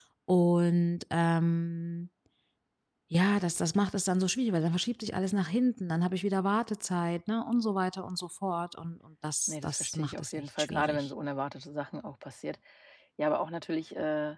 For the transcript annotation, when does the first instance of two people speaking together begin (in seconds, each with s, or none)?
9.5 s